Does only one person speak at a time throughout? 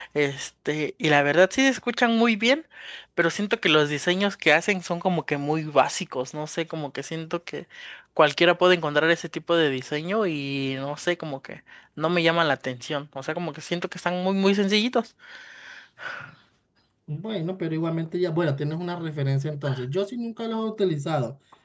Yes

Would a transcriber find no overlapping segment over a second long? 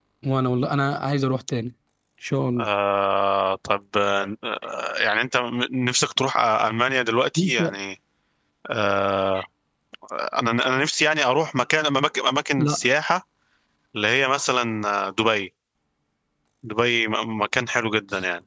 Yes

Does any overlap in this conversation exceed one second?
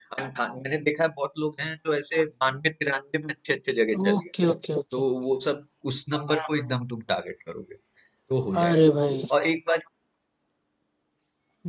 No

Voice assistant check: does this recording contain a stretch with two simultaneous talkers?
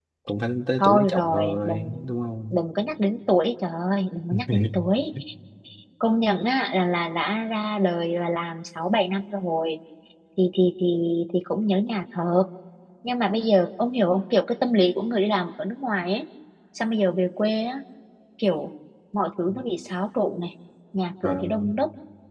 Yes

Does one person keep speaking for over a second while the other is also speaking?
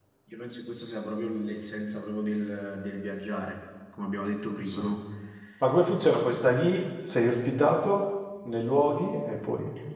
No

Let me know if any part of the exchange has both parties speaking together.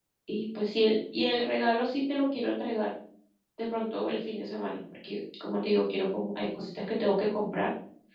No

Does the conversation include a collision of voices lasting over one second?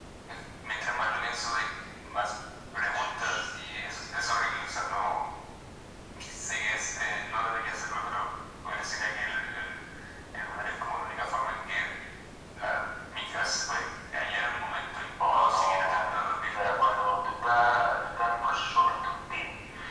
Yes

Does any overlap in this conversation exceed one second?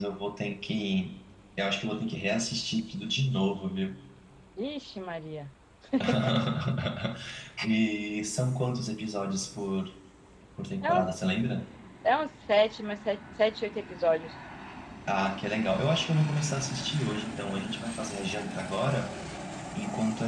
No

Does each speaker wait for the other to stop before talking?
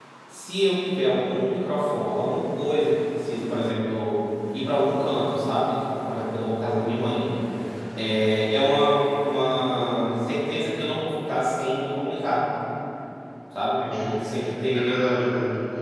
No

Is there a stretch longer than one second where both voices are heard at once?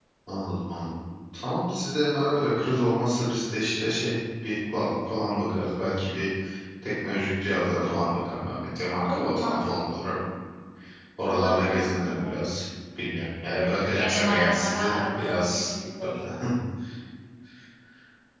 Yes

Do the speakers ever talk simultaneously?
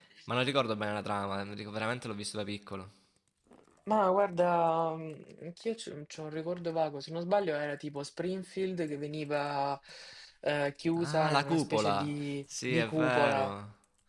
Yes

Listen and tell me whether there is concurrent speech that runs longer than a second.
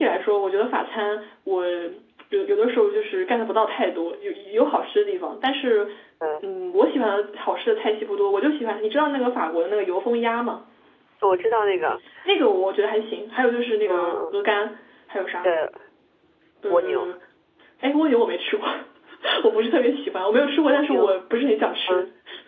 No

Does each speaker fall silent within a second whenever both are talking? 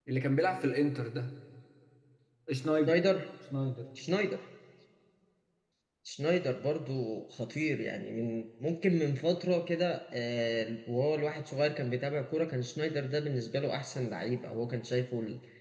Yes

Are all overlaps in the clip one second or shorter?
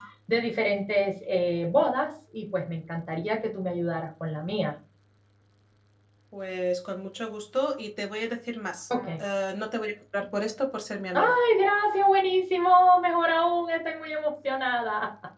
Yes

